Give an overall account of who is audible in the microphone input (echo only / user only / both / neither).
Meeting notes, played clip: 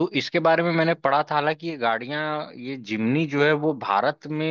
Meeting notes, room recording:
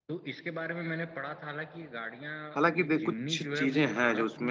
both